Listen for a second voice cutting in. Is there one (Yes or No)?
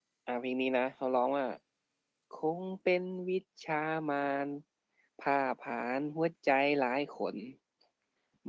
No